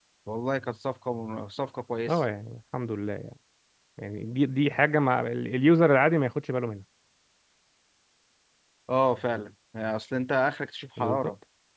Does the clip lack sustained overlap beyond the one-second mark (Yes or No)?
Yes